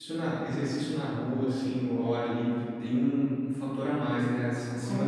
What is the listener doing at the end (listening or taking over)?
taking over